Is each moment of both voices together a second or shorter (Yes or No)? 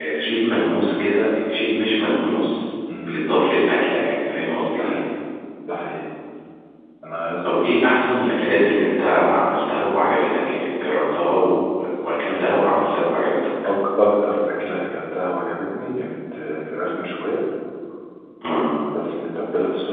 Yes